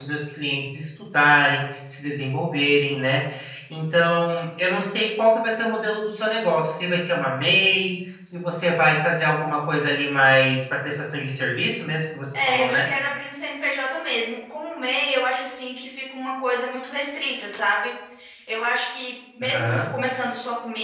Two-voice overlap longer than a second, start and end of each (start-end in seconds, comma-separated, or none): none